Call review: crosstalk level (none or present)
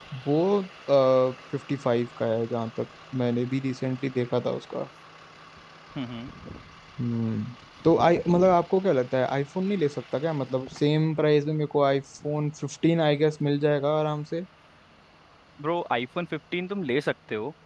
none